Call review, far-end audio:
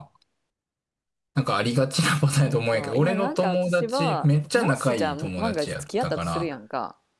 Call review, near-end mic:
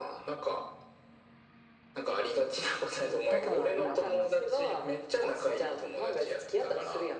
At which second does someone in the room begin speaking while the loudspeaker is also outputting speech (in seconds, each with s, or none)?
3.0 s